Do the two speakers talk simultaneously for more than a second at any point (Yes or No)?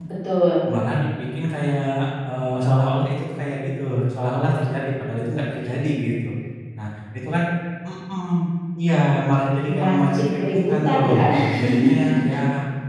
Yes